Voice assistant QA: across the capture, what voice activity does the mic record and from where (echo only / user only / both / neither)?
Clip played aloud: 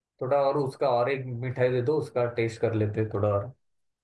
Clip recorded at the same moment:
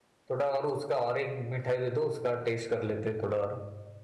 echo only